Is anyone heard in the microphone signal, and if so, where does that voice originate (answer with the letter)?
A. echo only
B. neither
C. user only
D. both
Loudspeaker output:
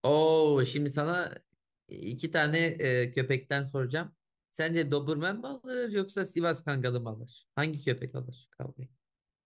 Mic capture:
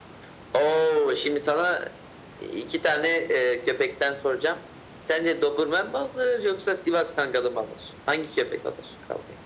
A